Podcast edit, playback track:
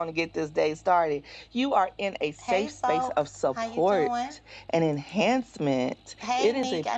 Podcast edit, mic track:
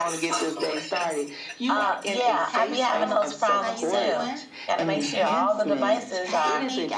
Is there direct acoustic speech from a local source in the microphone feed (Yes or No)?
Yes